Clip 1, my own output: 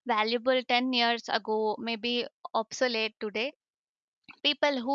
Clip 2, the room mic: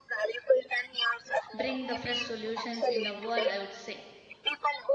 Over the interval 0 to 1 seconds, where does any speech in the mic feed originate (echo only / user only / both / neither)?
echo only